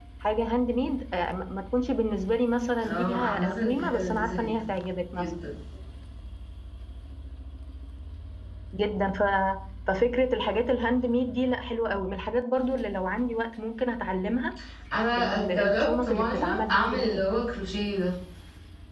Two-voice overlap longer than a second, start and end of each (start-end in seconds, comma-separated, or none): 2.8-4.5, 15.2-17.3